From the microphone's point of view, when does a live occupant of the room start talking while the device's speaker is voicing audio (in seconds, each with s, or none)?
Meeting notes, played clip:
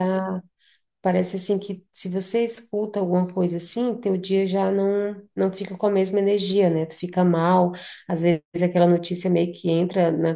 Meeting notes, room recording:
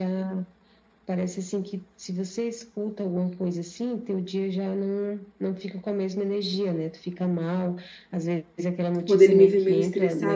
9.1 s